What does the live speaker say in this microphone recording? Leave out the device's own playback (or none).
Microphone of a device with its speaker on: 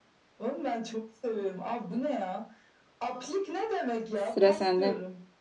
Sıra sende.